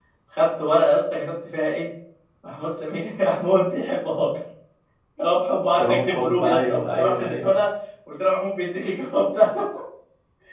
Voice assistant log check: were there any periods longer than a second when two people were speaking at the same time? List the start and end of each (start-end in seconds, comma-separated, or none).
5.7-7.5